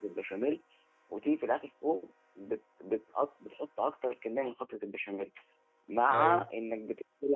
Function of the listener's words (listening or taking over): listening